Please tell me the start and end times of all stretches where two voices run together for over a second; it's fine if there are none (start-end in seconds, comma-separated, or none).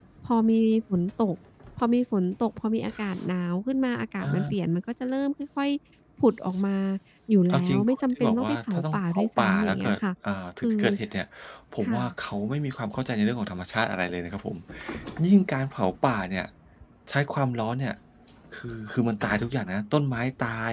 7.5-9.9